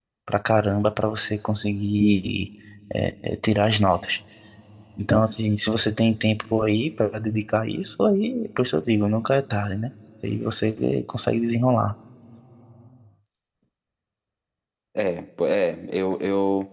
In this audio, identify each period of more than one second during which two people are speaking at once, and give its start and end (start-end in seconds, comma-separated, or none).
none